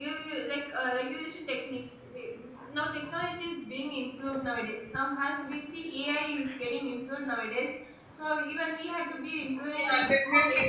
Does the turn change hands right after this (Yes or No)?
Yes